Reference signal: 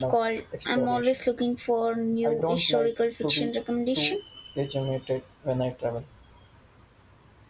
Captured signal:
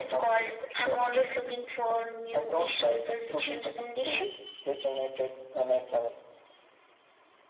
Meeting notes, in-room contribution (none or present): none